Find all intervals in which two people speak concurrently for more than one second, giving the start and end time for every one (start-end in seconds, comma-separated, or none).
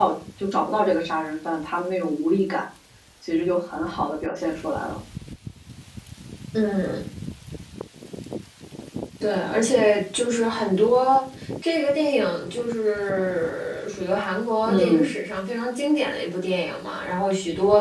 none